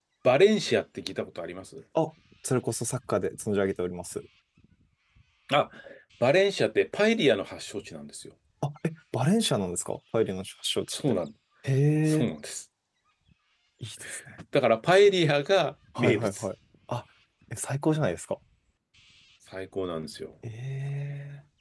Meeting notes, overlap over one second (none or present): none